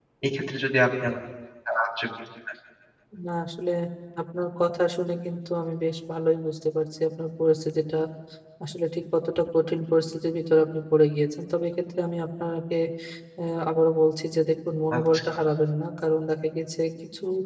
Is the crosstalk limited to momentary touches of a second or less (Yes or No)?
Yes